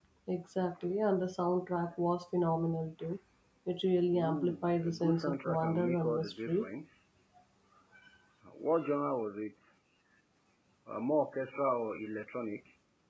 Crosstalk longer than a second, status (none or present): present